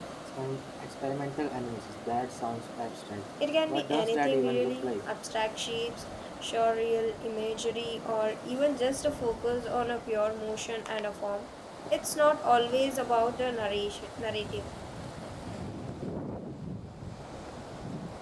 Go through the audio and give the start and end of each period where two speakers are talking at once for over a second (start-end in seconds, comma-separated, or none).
3.7-5.1